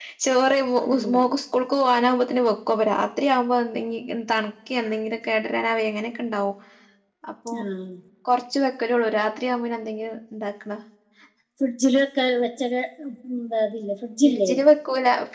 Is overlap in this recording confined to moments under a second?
Yes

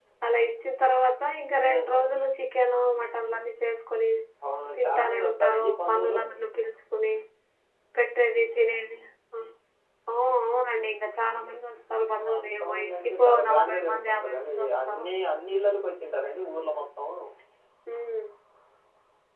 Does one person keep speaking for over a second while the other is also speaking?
Yes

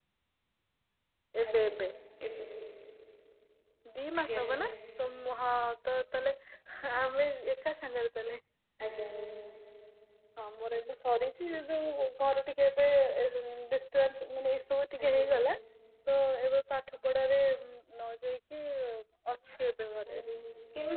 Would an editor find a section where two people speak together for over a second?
No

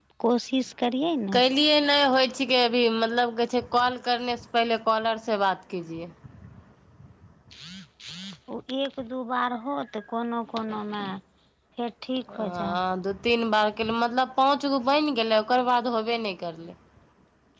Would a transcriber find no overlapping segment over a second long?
Yes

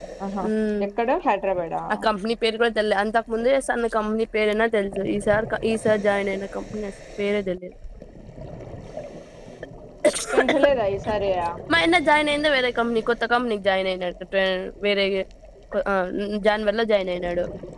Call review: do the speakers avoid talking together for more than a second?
Yes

